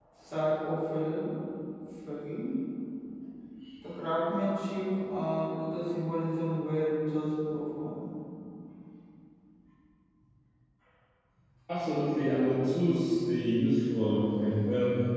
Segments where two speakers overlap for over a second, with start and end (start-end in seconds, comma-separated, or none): none